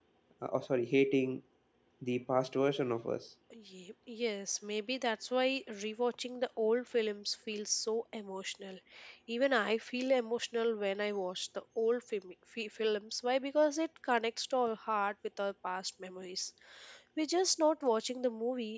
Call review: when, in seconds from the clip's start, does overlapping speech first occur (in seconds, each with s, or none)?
none